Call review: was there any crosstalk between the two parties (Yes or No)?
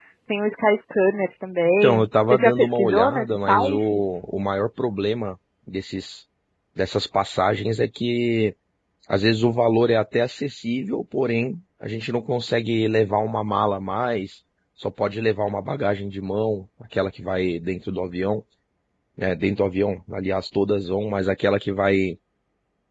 Yes